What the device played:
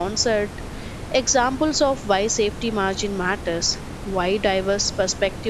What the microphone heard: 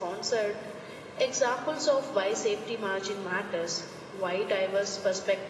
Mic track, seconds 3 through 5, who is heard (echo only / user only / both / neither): echo only